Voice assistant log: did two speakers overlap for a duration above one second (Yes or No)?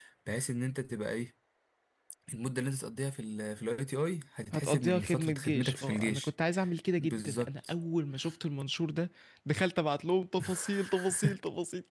Yes